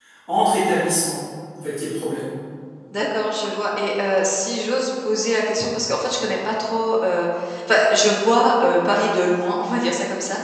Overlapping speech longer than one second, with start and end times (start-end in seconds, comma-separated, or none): none